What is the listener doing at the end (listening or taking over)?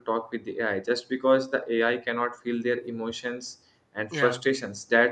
listening